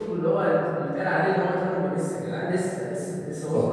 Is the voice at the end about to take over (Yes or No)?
Yes